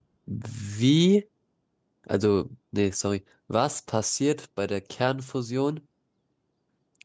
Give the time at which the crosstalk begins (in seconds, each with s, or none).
none